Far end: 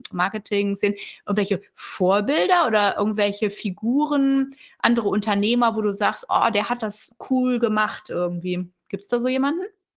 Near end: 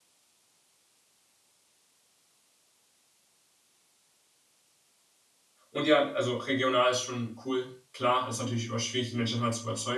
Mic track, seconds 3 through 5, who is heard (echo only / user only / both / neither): neither